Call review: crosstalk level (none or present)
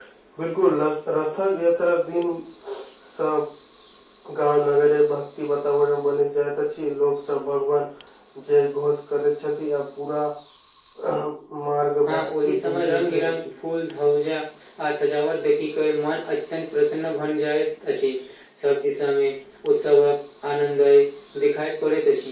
present